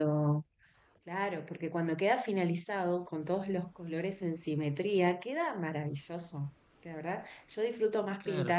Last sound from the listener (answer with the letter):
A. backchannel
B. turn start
A